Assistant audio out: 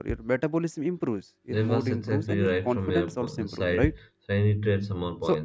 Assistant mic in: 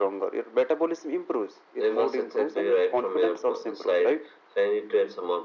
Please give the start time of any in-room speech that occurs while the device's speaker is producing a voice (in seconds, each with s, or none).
none